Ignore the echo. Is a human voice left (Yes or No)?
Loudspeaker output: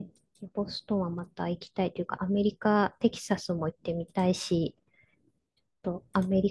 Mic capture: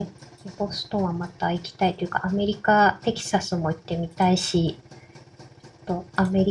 No